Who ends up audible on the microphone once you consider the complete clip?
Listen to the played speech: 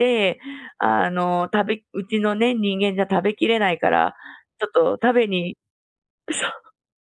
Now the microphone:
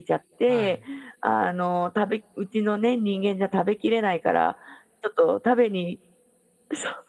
both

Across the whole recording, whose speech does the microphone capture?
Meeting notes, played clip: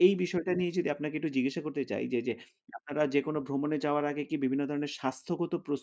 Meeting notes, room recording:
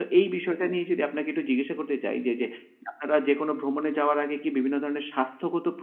echo only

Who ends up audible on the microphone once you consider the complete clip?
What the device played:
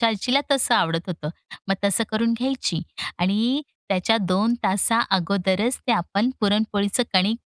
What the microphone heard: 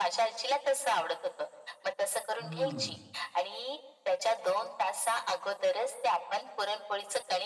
both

